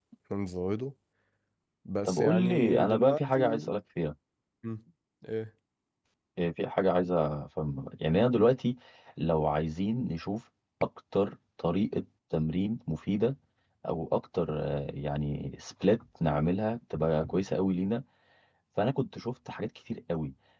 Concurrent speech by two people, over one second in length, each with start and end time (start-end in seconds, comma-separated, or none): 2.0-3.6